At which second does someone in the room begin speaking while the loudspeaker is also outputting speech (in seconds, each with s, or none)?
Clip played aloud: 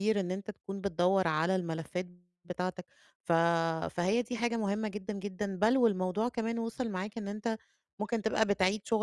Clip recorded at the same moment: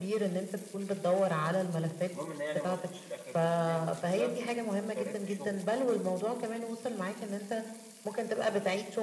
2.1 s